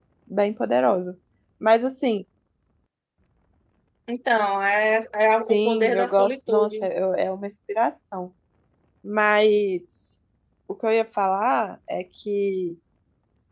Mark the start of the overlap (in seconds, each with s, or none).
5.5 s